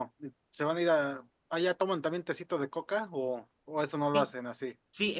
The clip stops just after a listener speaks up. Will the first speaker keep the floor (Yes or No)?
No